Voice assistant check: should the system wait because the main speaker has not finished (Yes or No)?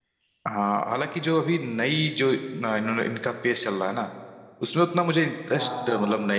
Yes